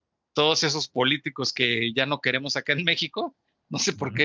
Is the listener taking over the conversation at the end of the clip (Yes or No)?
No